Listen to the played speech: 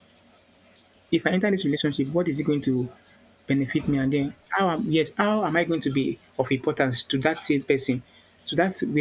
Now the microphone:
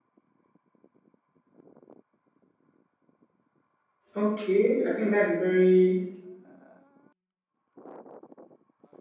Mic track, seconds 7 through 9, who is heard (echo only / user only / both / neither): neither